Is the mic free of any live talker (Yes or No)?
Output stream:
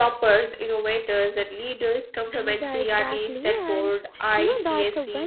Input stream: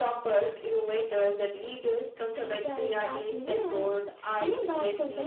Yes